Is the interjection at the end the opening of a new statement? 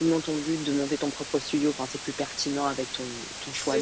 Yes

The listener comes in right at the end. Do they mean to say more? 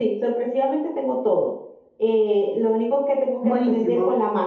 No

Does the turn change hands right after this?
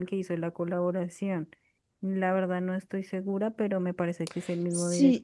Yes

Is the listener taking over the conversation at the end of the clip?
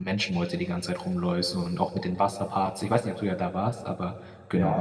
Yes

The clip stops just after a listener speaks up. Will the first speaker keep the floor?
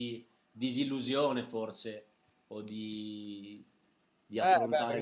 No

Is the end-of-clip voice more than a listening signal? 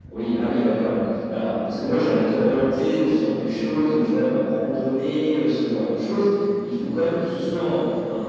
No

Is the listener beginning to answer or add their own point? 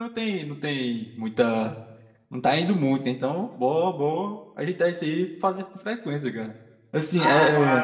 Yes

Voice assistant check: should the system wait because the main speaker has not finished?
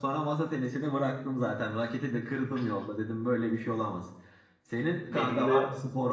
Yes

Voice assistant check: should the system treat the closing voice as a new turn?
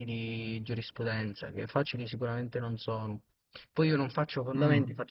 No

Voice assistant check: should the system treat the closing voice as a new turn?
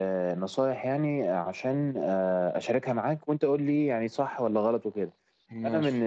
No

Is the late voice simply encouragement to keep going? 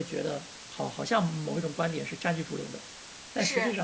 Yes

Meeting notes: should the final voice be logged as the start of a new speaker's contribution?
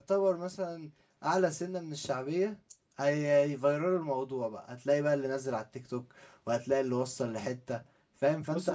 No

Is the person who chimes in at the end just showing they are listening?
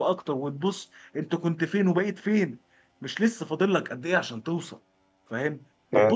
Yes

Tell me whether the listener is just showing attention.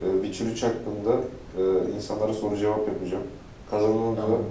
Yes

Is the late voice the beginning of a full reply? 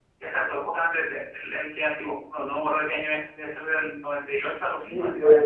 Yes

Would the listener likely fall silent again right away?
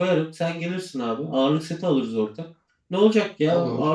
Yes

